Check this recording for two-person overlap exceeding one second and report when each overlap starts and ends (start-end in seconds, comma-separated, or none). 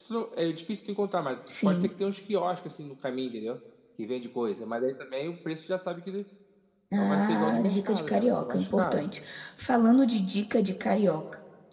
6.9-9.0